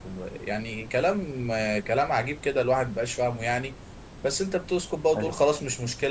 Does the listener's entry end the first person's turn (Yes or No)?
No